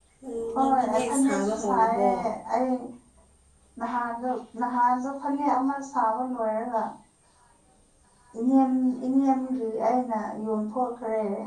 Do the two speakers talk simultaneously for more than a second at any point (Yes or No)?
Yes